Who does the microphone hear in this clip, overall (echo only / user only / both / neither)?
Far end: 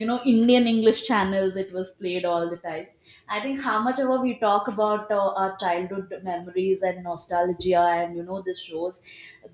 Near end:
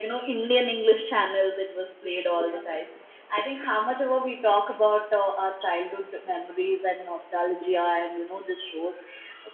both